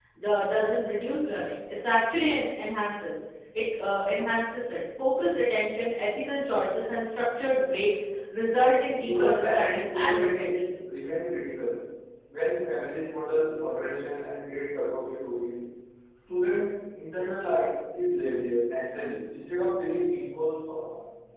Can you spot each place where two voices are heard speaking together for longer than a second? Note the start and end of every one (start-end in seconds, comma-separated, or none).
9.0-10.8